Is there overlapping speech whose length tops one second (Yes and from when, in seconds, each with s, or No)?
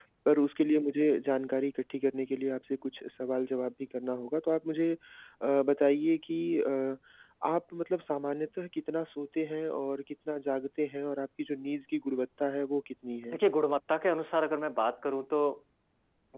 No